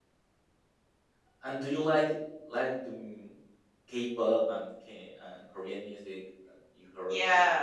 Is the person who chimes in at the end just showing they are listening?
No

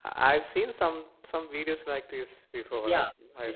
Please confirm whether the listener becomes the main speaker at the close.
Yes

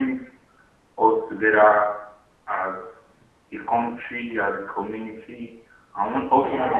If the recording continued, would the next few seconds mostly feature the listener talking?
No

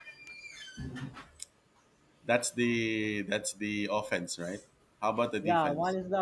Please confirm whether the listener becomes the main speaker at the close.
Yes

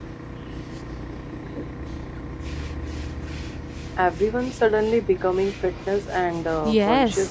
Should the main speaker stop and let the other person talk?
Yes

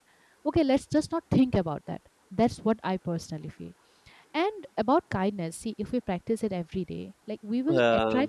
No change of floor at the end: Yes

